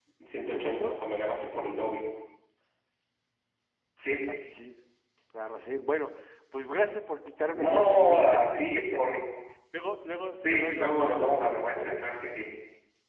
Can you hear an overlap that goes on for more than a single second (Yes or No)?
Yes